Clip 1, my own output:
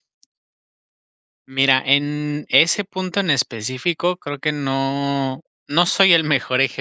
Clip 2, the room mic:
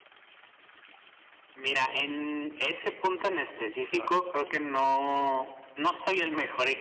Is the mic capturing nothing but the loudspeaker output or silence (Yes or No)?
No